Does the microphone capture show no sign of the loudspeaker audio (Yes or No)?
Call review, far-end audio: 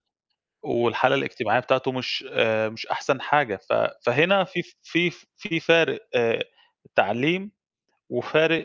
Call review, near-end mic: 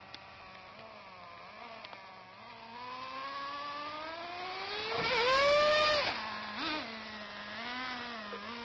Yes